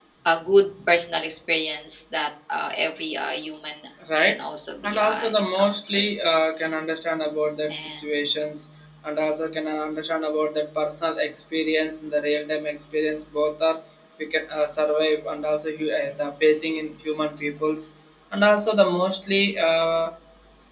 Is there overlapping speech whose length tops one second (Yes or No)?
Yes